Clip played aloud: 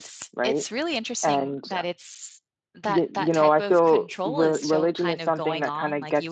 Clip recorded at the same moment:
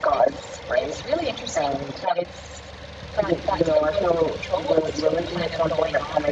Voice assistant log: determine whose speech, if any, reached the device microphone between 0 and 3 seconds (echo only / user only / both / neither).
echo only